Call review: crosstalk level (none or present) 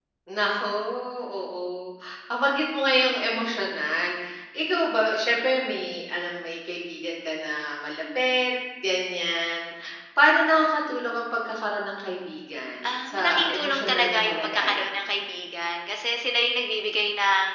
present